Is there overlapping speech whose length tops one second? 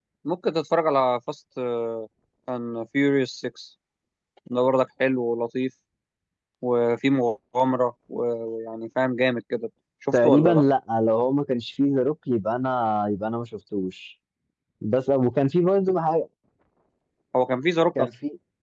No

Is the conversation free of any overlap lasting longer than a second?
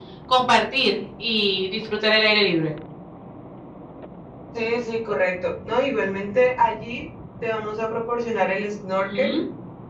Yes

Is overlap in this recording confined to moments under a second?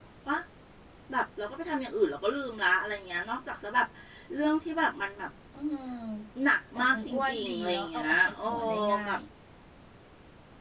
No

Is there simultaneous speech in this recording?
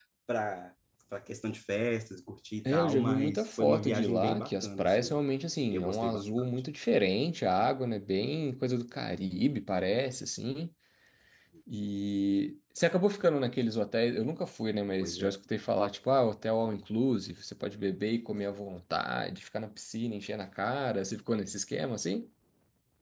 Yes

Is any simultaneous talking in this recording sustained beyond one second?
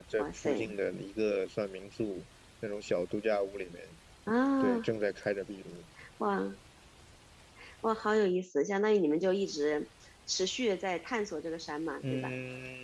No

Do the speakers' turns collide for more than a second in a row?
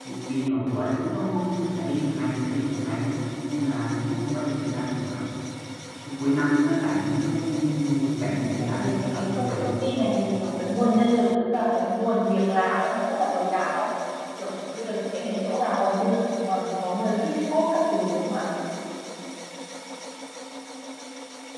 Yes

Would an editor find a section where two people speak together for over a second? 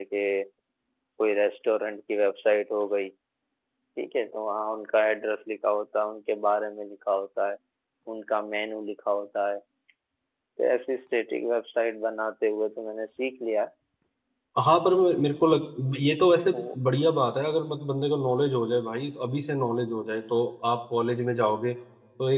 No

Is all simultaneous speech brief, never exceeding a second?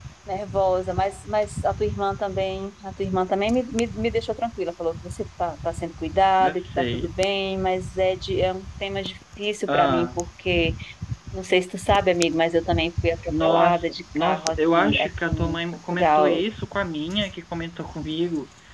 No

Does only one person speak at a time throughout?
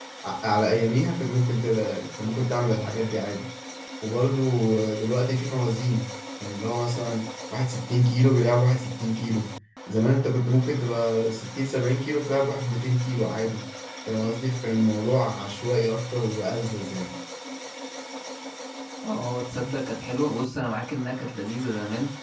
Yes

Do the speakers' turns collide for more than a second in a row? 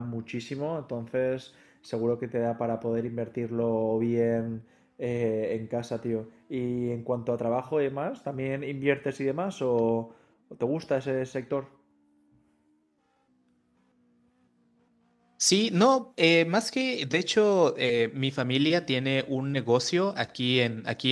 No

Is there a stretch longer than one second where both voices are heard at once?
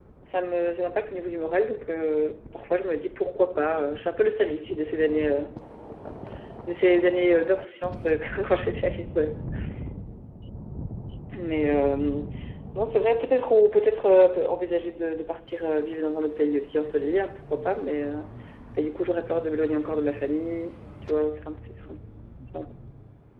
No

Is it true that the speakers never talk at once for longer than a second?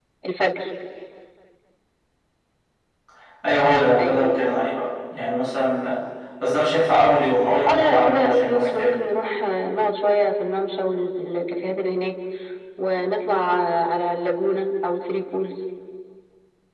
No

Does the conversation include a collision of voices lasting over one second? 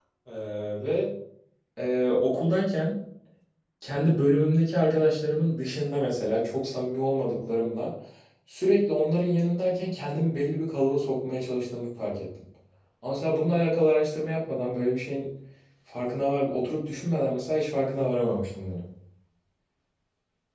No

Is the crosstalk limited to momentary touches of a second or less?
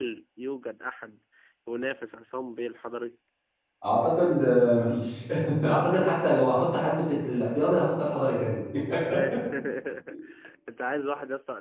Yes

